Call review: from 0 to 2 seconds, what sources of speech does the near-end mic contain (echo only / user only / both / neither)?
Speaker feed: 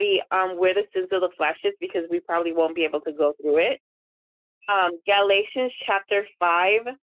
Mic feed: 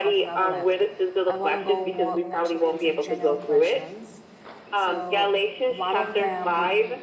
both